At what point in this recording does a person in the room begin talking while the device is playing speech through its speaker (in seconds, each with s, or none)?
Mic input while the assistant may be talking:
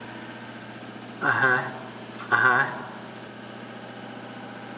1.2 s